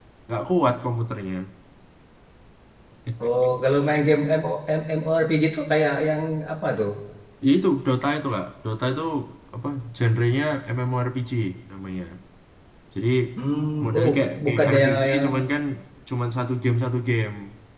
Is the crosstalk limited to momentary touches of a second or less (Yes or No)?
No